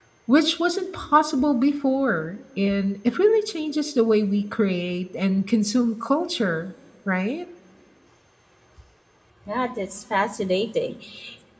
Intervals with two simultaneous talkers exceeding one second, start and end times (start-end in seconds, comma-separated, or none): none